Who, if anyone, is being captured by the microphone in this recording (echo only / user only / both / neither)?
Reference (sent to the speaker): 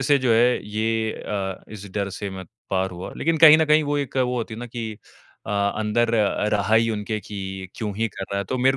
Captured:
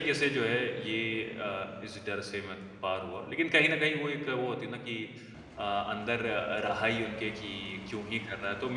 echo only